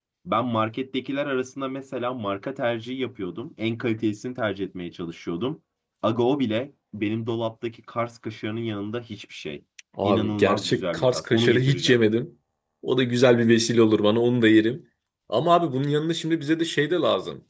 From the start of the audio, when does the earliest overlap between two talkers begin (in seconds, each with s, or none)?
10.0 s